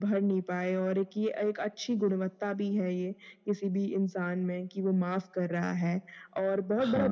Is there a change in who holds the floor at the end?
No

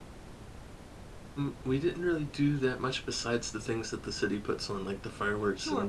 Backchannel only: No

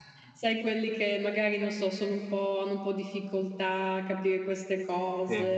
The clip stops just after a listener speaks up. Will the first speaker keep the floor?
Yes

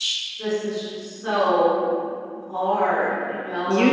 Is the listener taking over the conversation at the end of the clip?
Yes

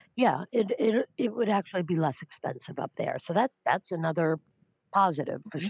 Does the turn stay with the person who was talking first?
No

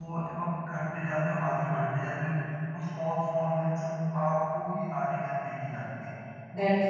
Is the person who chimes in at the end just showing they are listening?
Yes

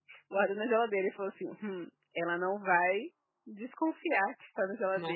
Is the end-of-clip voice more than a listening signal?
No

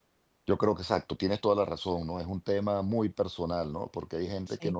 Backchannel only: Yes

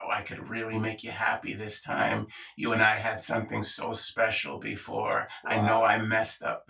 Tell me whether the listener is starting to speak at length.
No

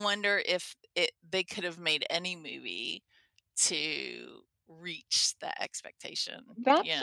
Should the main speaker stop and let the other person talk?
Yes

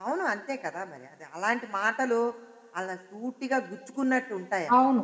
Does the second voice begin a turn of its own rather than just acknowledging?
Yes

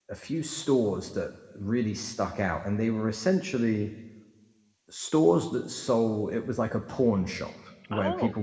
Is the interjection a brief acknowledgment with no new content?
Yes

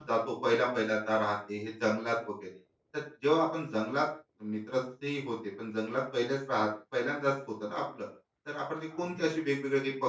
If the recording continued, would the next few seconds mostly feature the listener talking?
No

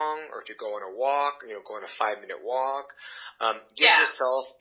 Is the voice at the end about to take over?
No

